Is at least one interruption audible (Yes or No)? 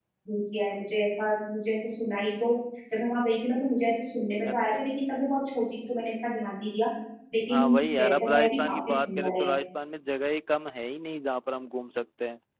Yes